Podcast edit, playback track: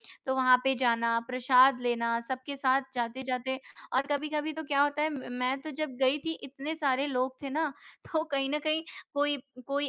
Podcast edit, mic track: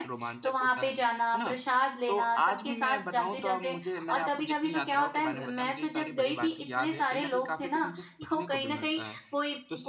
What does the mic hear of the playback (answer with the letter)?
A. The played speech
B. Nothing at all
A